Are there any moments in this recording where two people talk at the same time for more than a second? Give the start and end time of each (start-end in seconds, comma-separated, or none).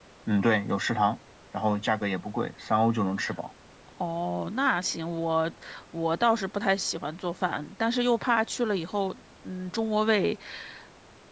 none